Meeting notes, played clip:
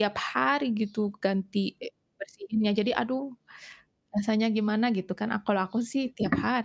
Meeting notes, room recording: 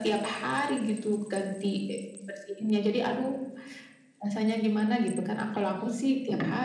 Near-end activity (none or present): none